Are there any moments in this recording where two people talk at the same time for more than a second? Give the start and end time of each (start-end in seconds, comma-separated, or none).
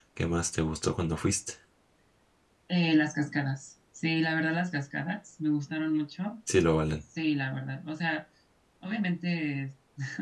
none